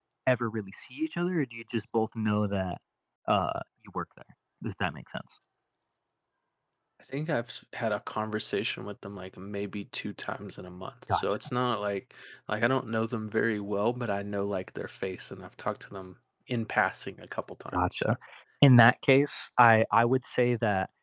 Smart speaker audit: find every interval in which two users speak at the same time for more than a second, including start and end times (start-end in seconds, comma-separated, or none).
none